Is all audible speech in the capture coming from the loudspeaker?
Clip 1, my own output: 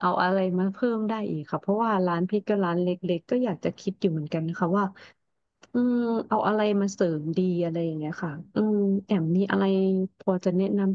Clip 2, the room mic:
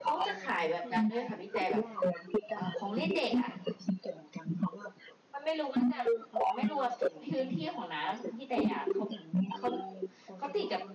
No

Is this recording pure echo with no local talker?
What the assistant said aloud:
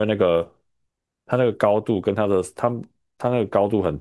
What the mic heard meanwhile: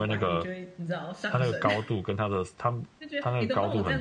No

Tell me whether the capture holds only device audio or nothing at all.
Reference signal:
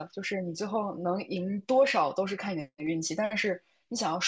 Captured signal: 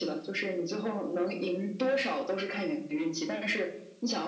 Yes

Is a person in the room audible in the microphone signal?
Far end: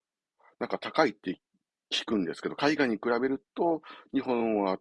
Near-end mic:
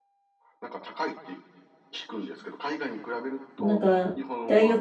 Yes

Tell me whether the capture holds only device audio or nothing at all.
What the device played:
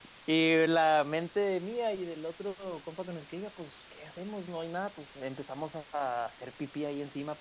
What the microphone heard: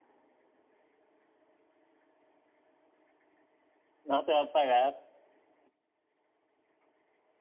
No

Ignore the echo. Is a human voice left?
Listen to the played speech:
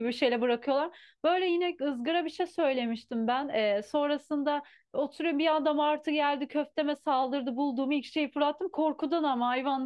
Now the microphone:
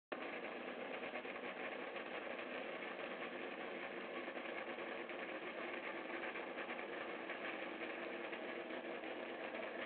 No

